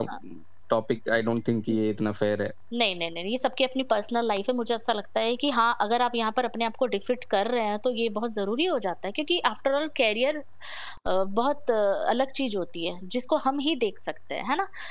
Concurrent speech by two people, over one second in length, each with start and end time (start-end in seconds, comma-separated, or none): none